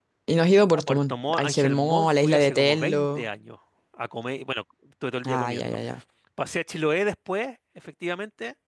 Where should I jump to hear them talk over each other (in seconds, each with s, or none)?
0.7 s